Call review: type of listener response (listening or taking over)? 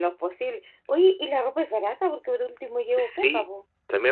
taking over